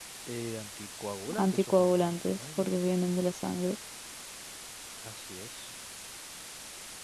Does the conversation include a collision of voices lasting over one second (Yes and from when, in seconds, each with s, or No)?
Yes, from 1.3 s